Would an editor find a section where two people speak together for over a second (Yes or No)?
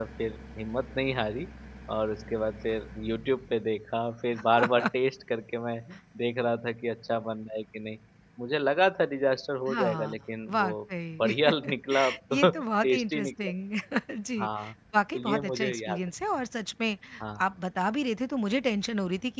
Yes